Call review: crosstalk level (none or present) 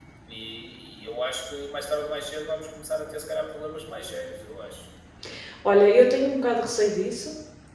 none